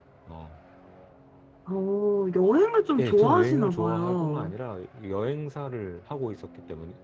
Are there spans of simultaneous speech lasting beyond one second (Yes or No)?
Yes